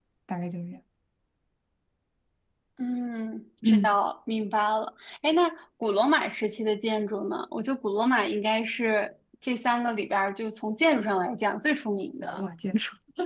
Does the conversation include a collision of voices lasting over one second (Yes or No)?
No